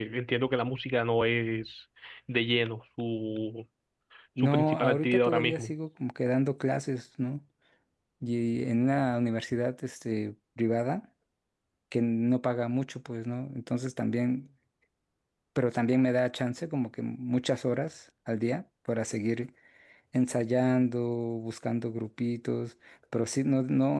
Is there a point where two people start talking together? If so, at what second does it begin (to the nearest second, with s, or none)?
4 s